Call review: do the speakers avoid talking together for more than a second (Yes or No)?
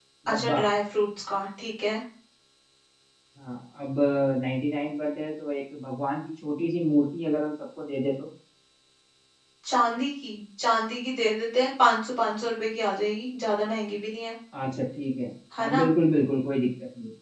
Yes